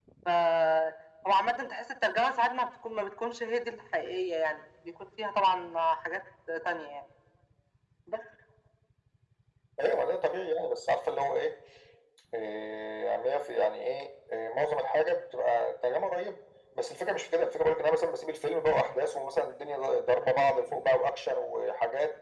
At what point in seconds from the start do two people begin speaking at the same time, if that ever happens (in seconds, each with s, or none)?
none